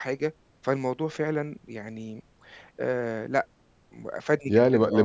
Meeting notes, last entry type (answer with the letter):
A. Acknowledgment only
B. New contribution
B